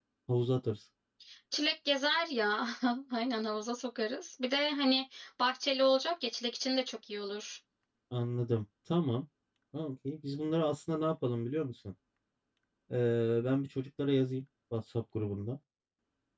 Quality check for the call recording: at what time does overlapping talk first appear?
none

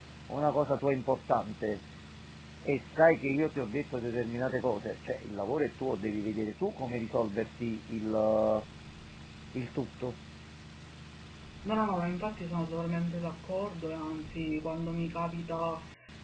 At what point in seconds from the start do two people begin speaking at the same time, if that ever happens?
none

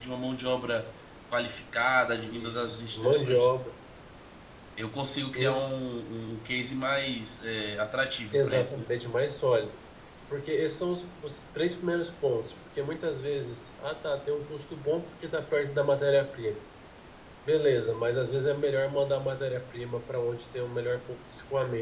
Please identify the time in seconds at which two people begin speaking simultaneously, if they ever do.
2.2 s

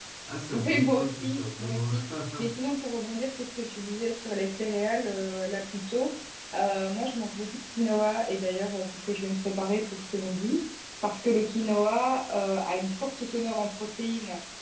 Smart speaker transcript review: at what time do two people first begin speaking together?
0.5 s

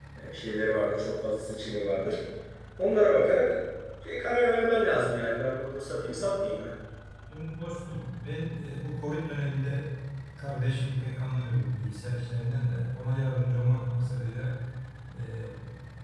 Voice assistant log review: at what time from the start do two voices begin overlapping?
none

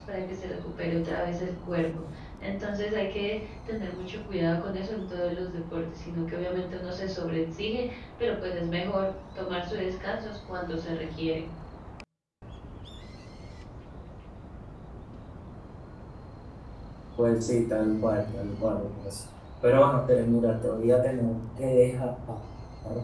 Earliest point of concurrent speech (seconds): none

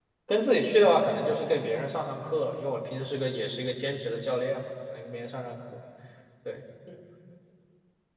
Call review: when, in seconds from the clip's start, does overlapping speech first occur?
none

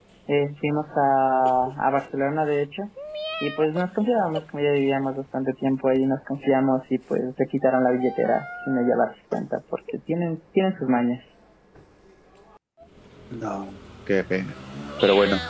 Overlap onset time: none

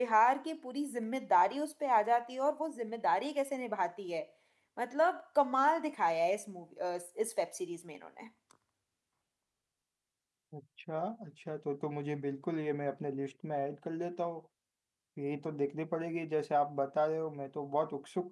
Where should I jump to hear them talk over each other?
none

